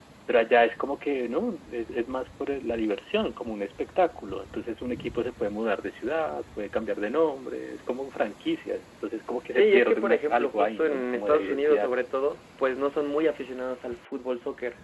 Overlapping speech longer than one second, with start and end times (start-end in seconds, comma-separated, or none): 9.5-11.9